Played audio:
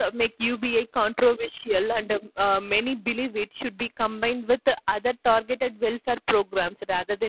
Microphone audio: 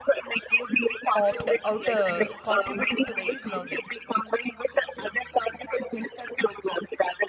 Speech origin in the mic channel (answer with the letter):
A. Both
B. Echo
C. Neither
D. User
A